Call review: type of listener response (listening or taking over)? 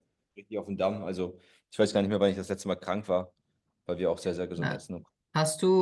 taking over